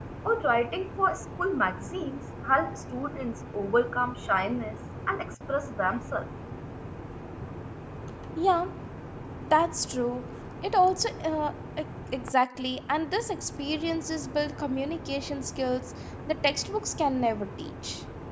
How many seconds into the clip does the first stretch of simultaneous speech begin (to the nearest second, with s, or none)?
none